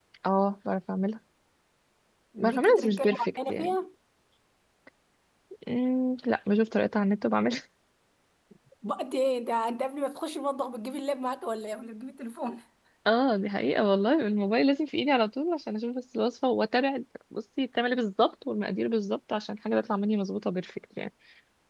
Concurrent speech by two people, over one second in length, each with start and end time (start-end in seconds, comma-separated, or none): 2.4-3.8